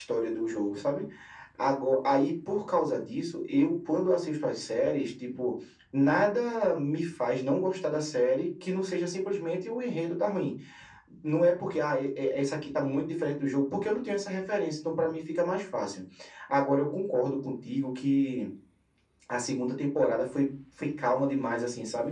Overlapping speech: No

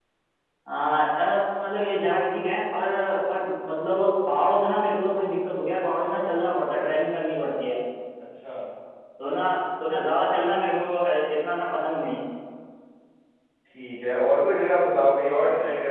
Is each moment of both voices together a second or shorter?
Yes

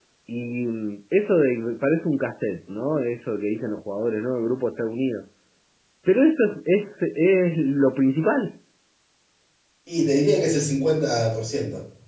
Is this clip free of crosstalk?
Yes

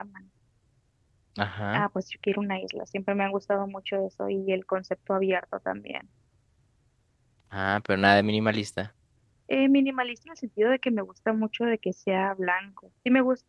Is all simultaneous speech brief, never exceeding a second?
Yes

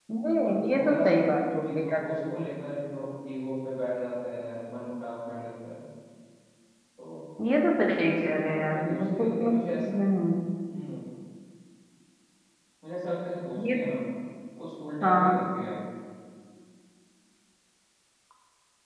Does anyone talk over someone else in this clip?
Yes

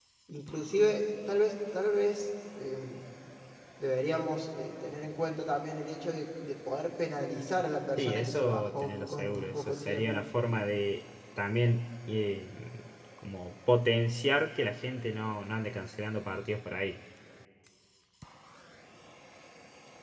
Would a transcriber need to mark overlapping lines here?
Yes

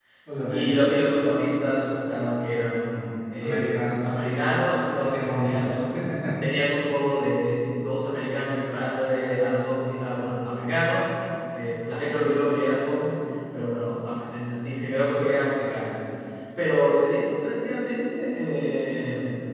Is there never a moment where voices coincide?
No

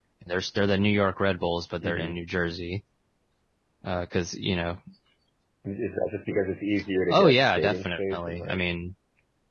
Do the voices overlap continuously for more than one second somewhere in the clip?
Yes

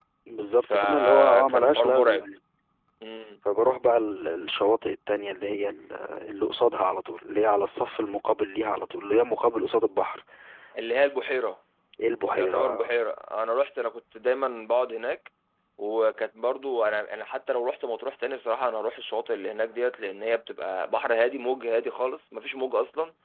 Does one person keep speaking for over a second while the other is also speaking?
Yes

